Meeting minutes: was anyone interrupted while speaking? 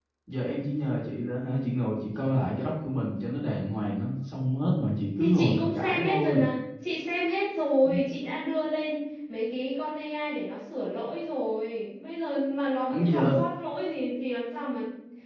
Yes, from 5.2 s

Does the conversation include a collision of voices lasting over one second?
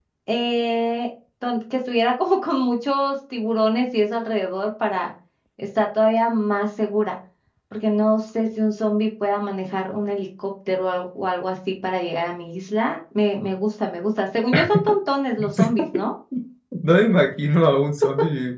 No

